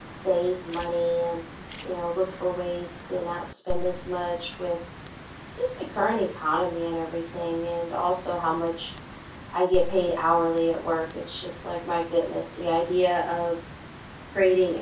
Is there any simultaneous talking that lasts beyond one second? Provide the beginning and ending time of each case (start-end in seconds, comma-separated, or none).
none